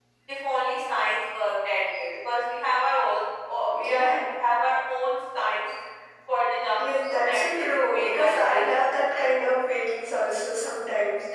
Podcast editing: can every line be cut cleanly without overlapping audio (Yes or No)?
No